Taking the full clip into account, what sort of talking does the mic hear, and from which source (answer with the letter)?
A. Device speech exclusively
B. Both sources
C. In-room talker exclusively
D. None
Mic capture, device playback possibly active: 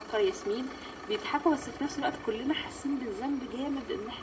A